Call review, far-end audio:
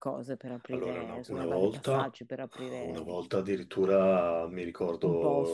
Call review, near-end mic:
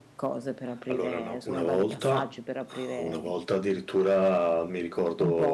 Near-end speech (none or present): none